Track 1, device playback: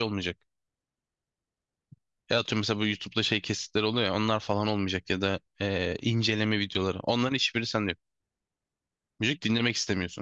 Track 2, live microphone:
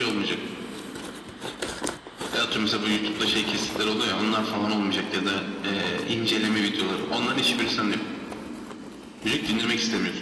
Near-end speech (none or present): none